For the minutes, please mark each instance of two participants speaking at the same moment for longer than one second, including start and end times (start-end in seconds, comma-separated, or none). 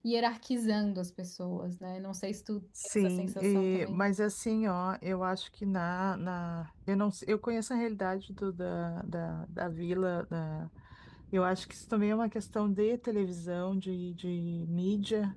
2.8-4.1